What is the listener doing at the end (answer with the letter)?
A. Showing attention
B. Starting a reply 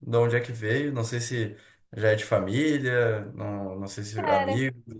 A